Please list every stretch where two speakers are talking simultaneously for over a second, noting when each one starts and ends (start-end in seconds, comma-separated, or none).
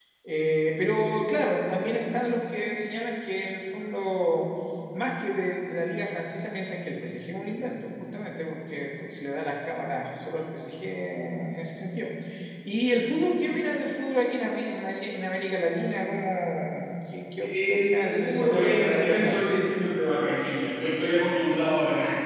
17.4-19.4